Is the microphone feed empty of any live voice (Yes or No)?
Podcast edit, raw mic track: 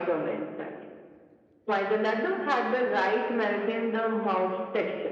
Yes